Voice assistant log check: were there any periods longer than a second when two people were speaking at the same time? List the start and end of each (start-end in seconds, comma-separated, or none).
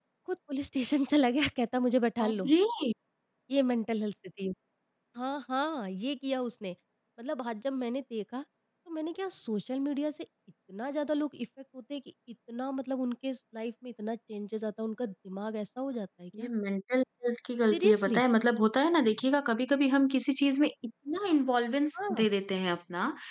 none